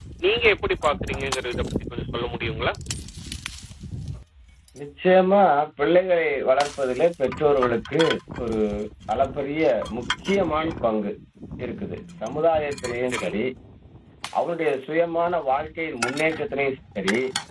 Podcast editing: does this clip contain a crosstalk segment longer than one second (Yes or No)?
No